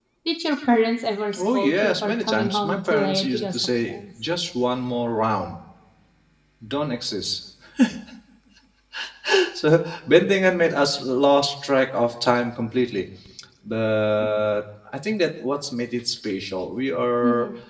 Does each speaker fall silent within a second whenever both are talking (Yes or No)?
No